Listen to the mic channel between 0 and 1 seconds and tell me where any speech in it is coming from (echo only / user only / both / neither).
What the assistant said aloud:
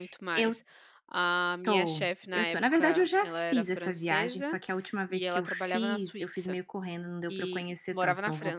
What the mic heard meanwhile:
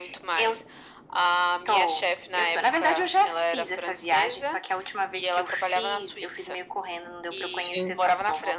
echo only